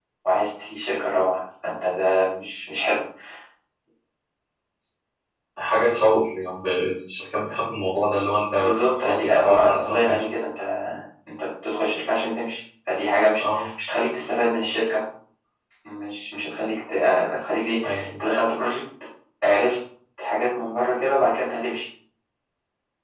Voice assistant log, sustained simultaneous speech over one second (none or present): present